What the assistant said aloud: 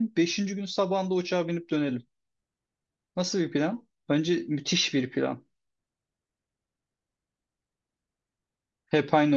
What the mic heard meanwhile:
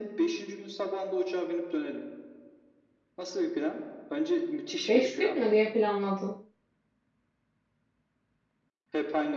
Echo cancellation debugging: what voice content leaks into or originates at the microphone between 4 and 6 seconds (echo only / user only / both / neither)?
both